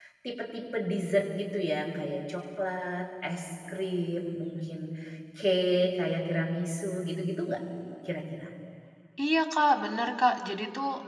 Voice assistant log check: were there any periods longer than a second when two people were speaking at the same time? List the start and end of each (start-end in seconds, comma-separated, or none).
none